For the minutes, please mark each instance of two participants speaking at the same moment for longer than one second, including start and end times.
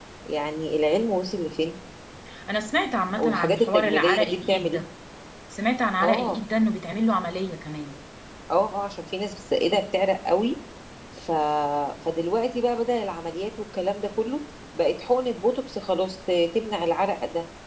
3.2-4.8

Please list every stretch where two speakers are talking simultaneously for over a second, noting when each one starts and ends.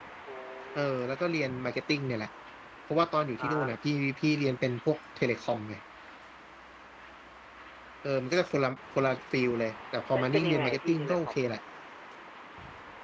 10.1-11.4

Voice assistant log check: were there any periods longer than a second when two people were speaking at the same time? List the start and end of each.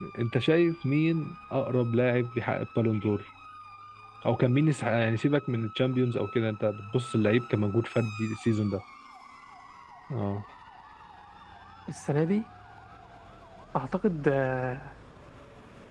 none

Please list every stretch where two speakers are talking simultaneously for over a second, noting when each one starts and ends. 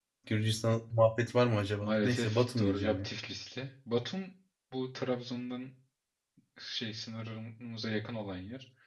1.8-3.1

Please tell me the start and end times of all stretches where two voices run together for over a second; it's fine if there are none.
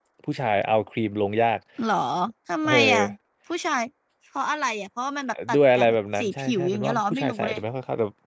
5.5-7.6

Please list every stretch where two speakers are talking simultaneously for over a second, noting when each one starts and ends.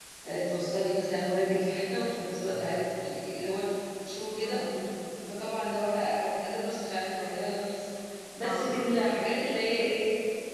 none

